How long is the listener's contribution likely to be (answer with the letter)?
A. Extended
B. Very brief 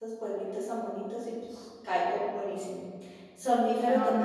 A